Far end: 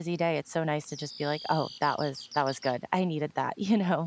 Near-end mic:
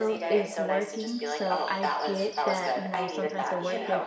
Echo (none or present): present